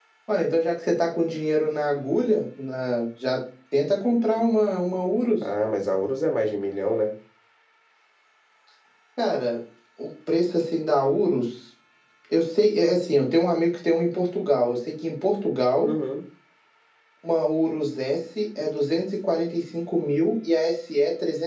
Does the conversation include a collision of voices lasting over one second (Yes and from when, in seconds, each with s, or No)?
No